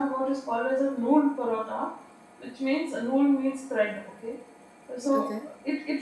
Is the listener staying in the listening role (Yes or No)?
Yes